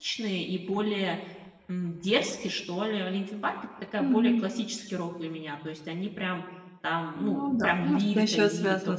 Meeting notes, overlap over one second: present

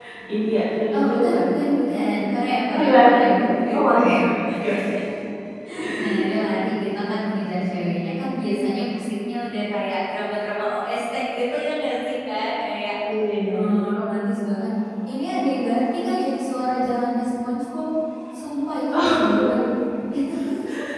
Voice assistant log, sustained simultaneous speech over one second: present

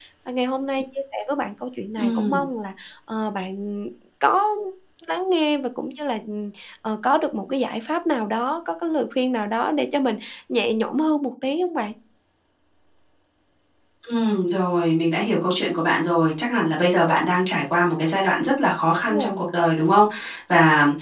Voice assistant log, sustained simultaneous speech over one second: none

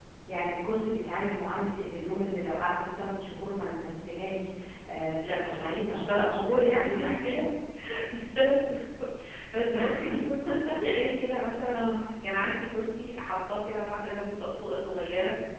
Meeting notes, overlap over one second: present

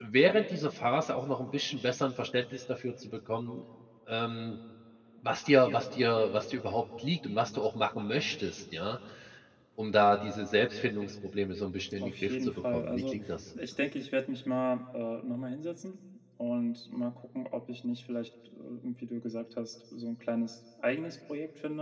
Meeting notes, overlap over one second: present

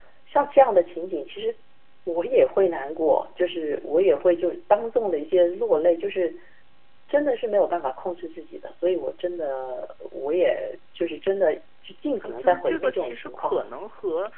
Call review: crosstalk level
present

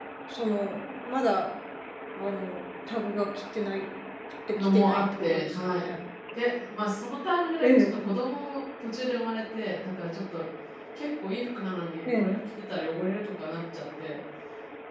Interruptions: present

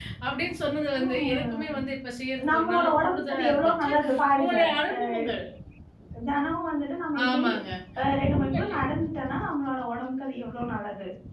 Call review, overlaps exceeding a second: present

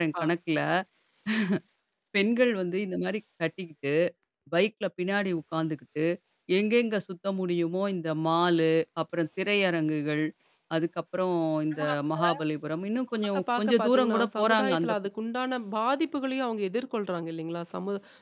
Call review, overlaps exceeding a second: present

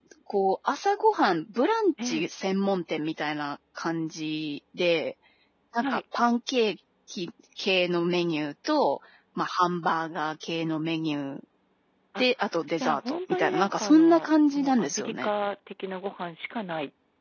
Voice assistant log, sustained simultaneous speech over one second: present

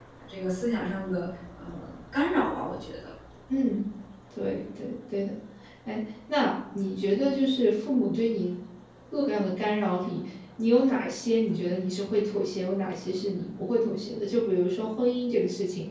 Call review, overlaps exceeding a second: none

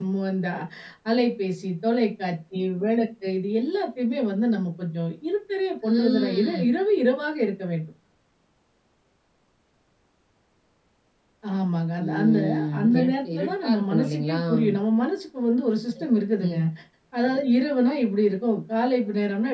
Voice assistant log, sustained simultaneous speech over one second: present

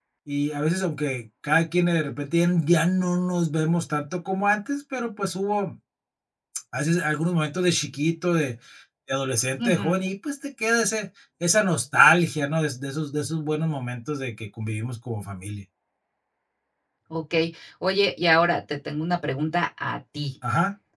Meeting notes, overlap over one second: none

